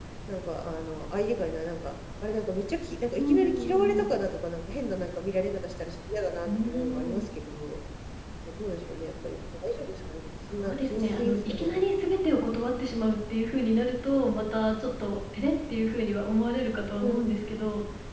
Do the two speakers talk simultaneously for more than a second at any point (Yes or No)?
Yes